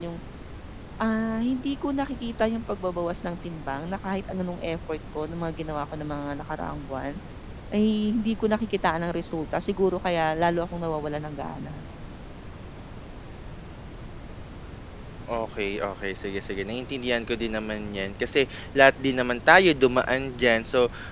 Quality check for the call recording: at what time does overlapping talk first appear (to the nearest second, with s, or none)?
none